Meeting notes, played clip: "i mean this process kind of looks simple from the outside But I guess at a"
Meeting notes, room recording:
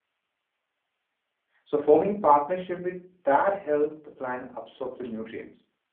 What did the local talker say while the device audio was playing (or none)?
So forming partnership with that help the plant absorb the nutrients.